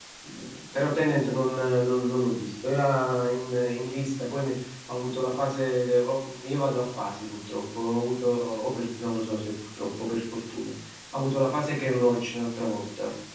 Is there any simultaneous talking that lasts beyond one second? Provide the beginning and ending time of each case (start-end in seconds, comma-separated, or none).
none